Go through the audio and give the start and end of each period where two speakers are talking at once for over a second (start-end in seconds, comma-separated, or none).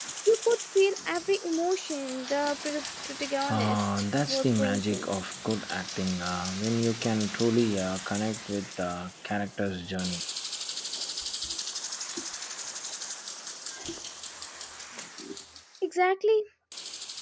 3.5-5.0